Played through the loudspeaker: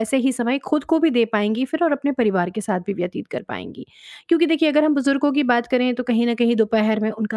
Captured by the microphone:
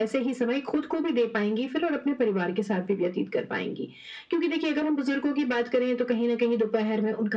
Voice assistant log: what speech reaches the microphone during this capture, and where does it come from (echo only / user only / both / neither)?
echo only